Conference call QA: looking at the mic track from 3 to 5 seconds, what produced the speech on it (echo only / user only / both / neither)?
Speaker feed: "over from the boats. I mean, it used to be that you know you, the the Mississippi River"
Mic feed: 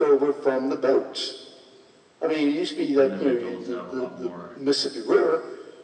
both